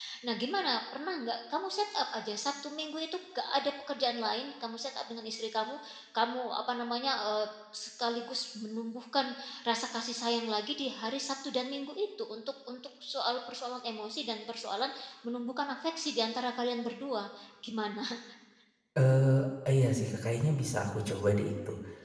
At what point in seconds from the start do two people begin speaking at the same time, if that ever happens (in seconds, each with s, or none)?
none